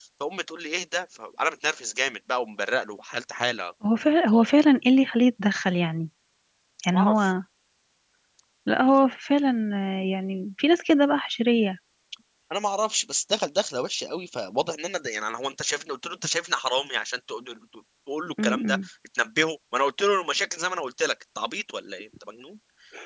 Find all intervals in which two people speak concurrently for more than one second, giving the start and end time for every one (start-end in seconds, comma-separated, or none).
none